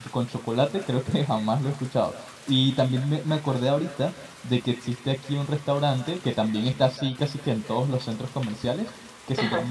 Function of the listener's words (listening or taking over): listening